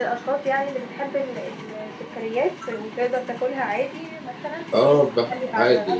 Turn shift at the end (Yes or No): Yes